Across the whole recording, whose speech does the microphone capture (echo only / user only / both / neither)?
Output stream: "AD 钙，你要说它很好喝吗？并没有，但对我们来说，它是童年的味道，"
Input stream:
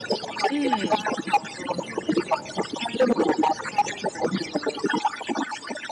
both